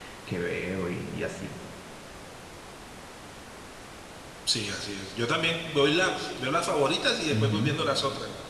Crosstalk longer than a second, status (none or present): none